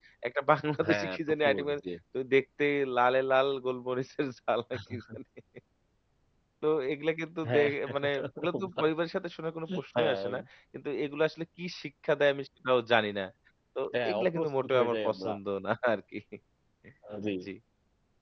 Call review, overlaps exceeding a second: present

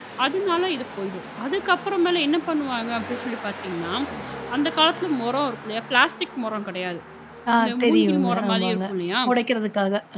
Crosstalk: present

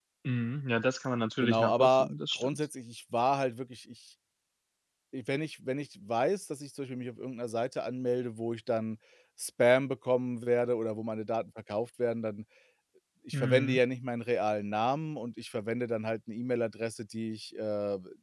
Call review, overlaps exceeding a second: present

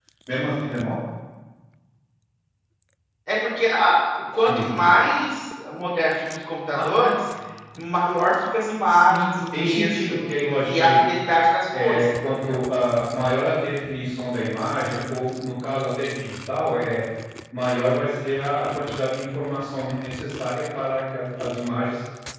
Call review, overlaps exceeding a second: present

